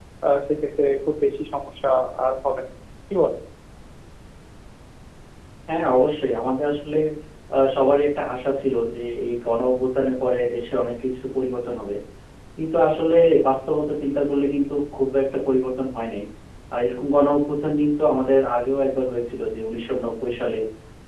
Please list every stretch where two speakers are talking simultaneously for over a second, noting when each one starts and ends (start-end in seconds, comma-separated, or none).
none